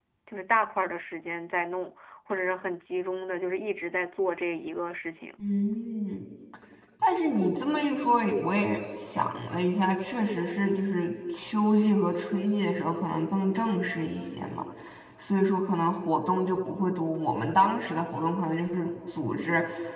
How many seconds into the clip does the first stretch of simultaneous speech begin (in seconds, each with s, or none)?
none